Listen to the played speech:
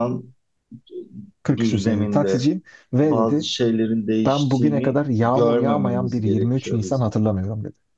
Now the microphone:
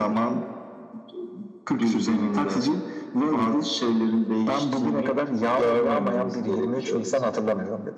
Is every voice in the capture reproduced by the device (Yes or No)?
Yes